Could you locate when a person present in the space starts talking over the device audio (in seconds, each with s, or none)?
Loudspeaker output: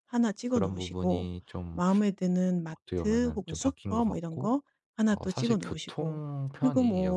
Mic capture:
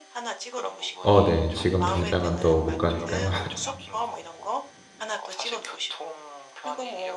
1.0 s